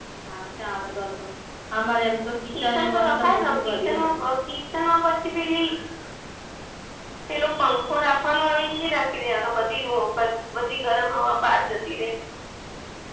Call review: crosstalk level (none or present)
present